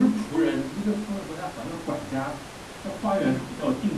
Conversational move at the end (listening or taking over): listening